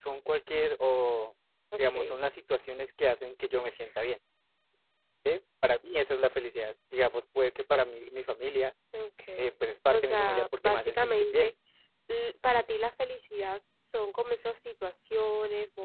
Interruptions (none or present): present